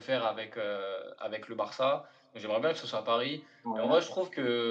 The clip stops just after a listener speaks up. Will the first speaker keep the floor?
Yes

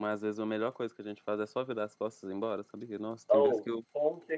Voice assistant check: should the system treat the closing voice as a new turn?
Yes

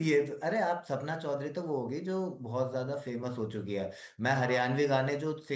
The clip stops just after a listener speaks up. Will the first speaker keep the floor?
Yes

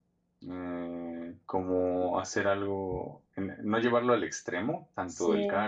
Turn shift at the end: No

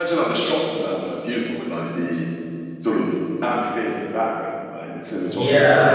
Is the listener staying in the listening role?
No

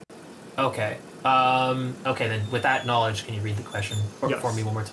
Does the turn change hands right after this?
Yes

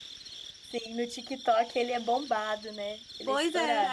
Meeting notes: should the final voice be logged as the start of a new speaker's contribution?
Yes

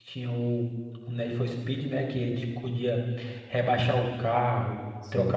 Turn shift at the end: No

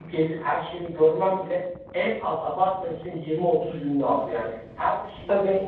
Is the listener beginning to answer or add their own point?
No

